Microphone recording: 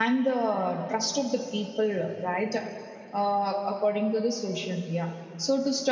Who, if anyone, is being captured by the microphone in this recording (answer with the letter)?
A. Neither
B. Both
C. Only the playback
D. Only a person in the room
D